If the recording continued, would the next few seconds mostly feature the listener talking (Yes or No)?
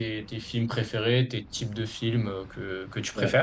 Yes